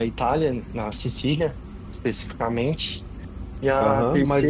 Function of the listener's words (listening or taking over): taking over